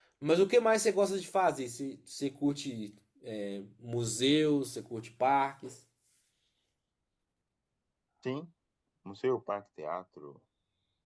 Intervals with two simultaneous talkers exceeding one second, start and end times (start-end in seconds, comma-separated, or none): none